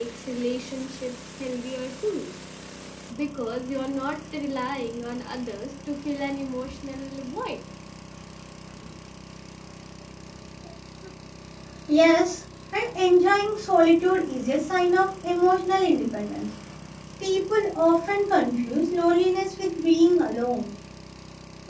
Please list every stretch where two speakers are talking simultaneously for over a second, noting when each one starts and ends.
none

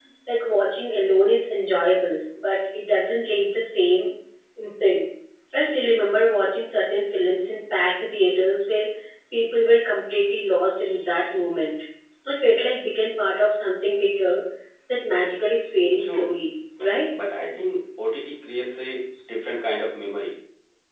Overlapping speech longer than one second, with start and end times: none

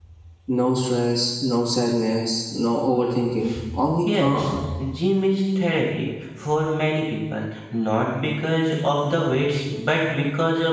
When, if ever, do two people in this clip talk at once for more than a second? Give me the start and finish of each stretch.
none

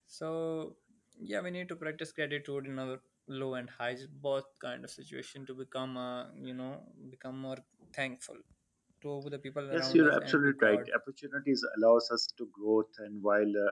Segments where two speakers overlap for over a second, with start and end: 9.7-10.9

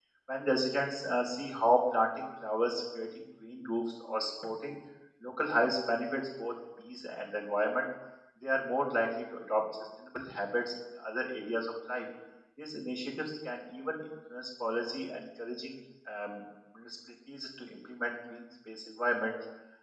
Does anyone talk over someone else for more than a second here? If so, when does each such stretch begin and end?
none

